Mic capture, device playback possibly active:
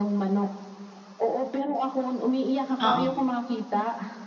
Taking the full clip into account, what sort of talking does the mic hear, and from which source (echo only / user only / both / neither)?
both